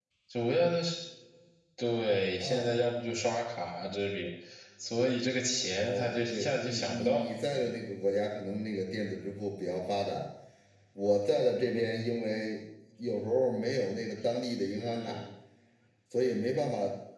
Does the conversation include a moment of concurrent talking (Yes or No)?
Yes